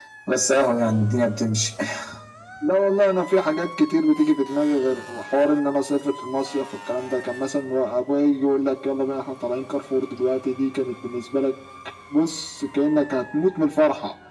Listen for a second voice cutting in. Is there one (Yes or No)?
No